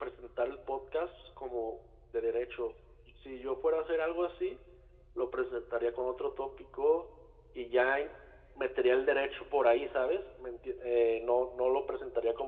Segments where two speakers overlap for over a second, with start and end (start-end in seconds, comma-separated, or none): none